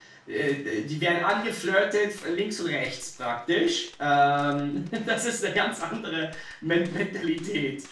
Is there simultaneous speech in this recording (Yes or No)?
No